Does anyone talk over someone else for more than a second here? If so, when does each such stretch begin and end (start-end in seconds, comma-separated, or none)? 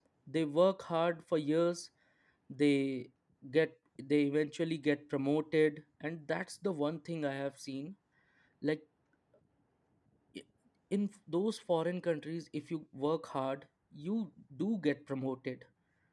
none